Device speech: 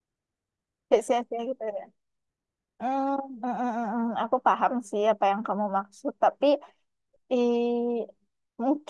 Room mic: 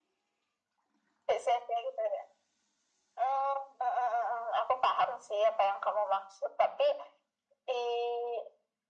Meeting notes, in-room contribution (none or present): none